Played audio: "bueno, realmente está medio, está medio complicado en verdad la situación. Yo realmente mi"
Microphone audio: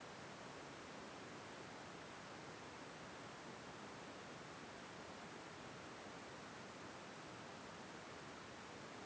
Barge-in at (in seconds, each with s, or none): none